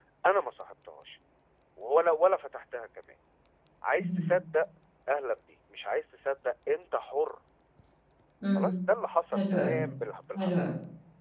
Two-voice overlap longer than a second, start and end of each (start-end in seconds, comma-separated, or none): none